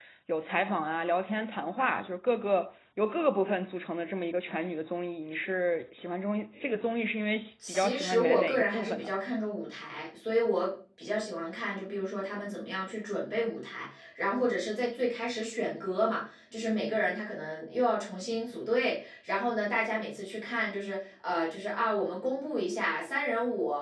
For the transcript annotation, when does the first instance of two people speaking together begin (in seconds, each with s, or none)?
7.6 s